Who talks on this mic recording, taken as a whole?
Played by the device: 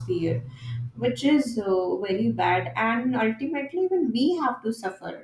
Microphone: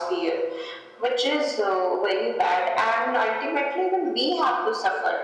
echo only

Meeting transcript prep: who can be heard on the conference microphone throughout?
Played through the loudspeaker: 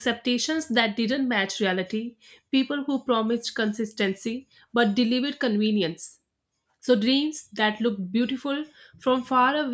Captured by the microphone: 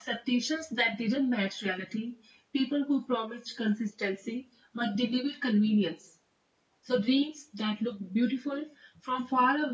echo only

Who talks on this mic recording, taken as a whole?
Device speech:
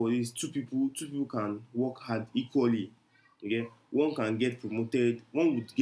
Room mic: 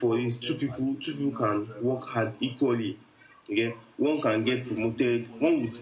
both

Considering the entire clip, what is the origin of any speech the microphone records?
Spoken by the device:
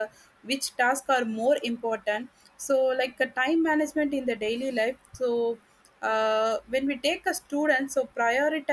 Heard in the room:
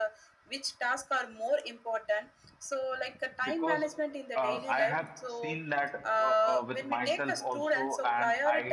both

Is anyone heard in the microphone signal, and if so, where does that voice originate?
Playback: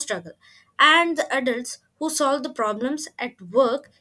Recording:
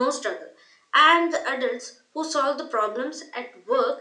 echo only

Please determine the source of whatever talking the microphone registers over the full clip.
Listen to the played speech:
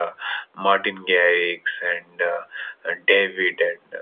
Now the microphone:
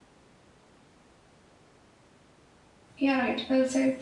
user only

